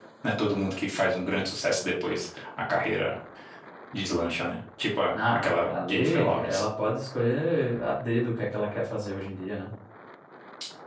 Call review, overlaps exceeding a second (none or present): present